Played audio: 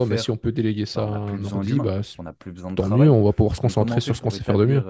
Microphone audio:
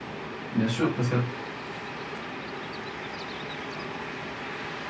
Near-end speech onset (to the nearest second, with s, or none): 1 s